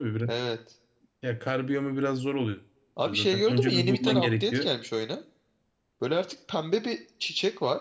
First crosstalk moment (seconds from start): 3.1 s

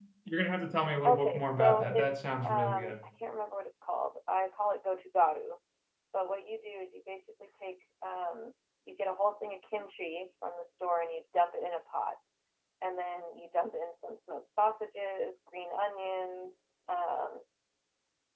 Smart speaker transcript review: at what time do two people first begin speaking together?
1.0 s

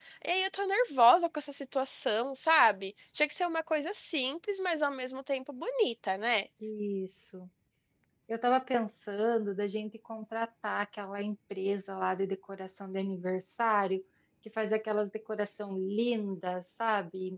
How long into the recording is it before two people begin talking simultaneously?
none

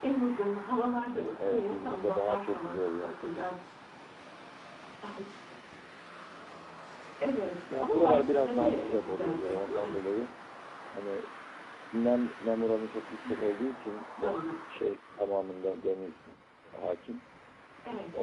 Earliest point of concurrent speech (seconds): 1.4 s

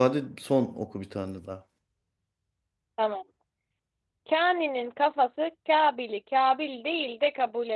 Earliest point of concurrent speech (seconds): none

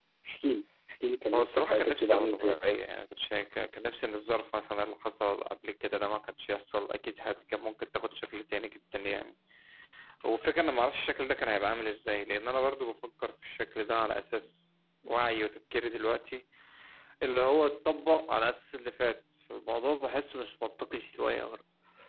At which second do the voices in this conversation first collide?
1.3 s

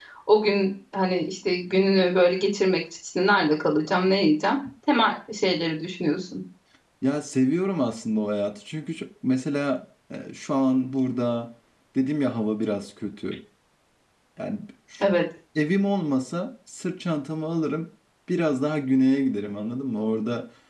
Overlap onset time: none

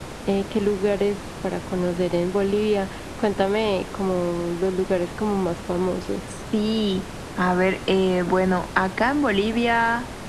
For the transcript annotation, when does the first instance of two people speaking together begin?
none

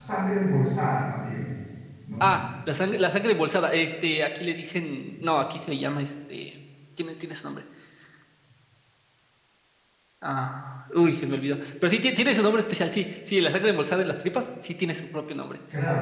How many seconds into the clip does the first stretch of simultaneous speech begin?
none

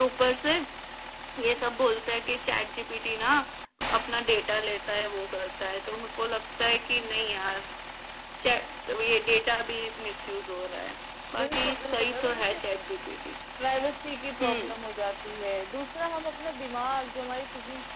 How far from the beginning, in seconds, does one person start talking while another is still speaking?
11.4 s

